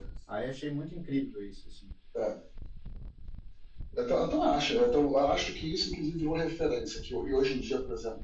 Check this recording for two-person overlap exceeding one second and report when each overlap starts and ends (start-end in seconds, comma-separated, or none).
none